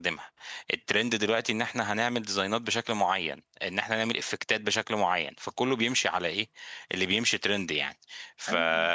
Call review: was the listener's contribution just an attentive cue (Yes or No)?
Yes